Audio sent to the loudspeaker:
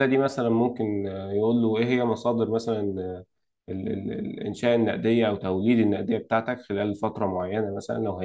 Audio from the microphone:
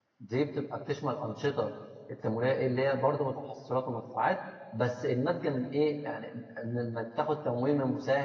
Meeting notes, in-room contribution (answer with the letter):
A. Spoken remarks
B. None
A